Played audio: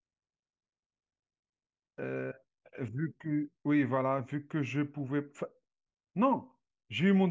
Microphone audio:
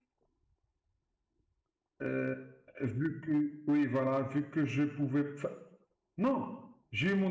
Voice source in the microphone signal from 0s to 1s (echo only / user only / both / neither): neither